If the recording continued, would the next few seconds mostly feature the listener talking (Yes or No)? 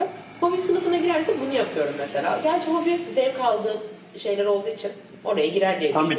Yes